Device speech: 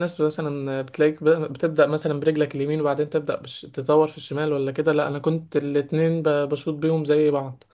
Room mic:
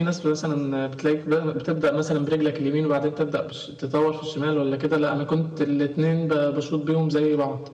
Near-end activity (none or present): none